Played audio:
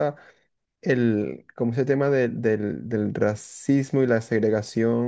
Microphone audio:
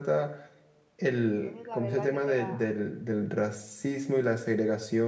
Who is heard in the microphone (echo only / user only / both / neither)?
both